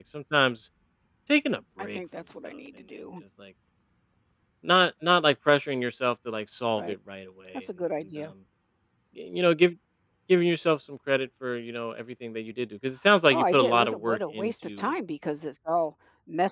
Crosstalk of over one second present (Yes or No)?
Yes